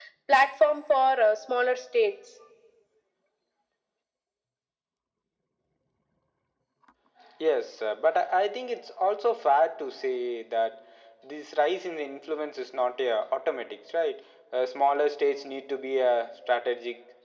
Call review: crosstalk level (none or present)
none